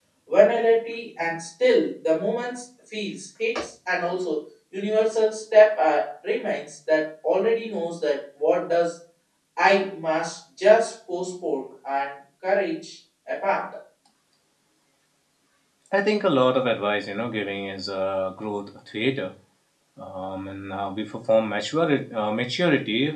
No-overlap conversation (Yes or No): Yes